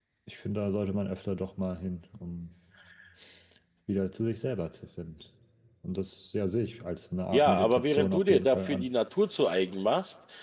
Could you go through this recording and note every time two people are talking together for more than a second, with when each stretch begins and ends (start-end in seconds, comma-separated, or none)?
7.3-8.9